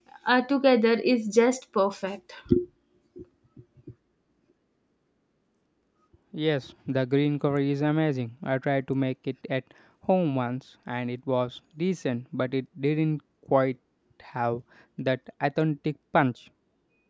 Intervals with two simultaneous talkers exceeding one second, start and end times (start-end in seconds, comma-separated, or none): none